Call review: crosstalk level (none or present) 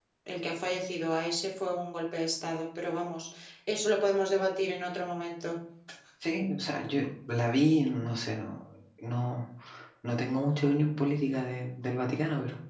none